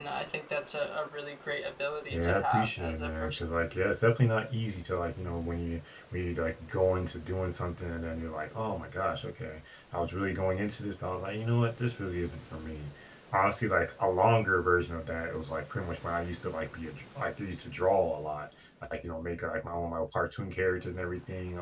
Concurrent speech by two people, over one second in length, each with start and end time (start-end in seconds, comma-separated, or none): 2.1-3.5